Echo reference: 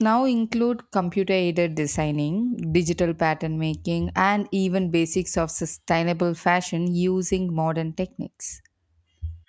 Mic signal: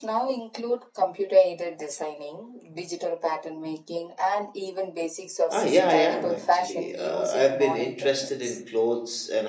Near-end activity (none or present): present